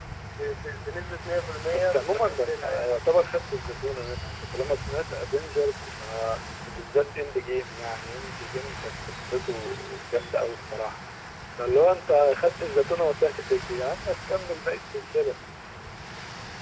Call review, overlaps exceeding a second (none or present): present